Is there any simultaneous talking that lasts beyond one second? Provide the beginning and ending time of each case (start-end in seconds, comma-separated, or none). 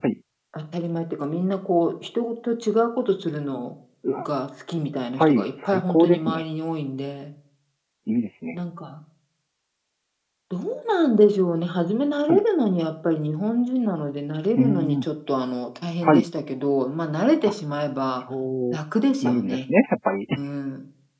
5.2-6.4